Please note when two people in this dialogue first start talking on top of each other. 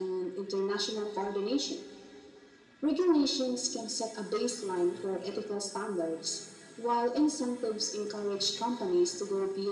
none

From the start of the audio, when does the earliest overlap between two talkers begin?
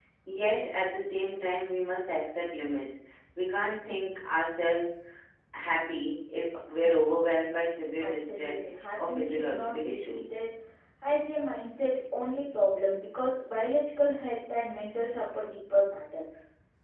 8.0 s

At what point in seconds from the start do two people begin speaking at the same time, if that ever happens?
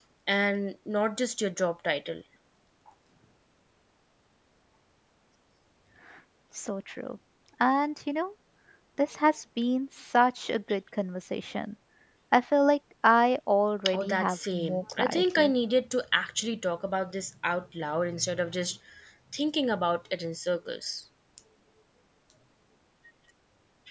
13.8 s

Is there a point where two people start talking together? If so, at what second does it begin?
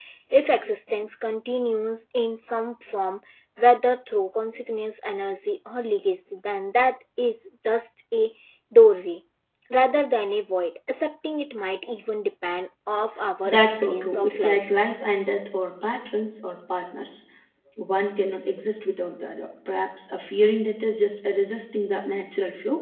13.4 s

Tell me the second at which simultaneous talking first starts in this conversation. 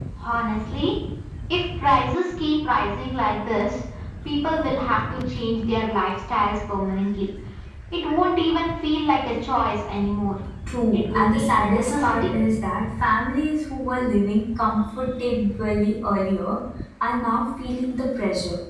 10.9 s

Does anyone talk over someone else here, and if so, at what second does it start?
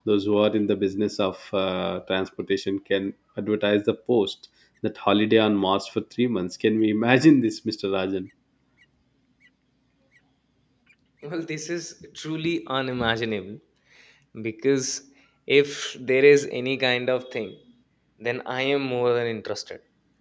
none

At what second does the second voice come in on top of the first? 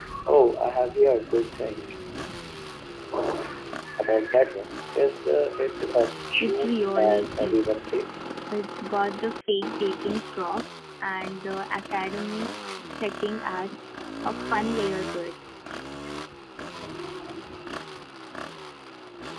6.4 s

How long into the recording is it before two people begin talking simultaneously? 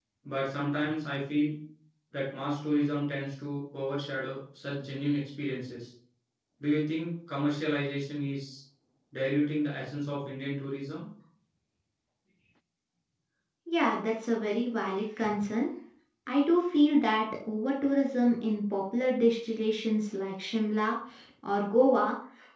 none

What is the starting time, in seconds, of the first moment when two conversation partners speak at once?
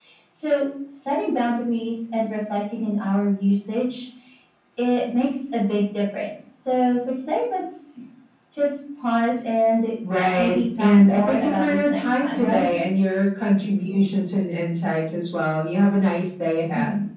10.4 s

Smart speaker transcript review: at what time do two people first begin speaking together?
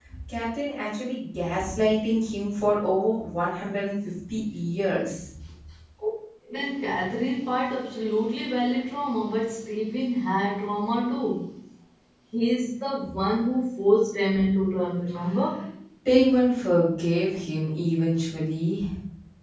none

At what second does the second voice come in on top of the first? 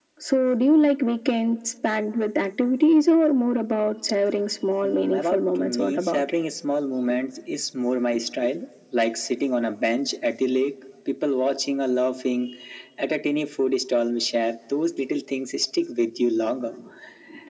4.8 s

